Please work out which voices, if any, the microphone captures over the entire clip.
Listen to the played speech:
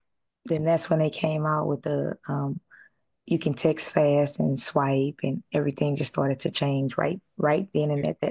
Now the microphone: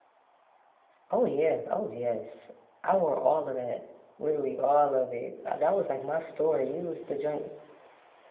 user only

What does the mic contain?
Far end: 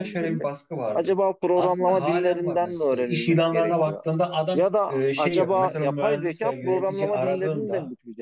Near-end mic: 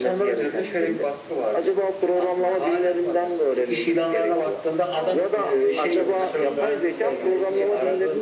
both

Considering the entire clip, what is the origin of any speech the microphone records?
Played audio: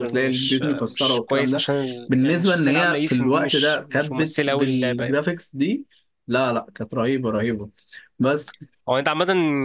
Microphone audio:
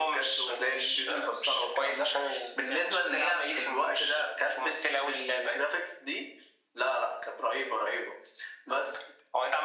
echo only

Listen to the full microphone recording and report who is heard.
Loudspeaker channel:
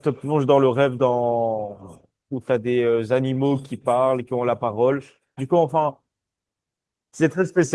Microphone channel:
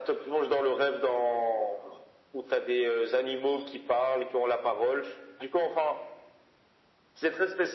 echo only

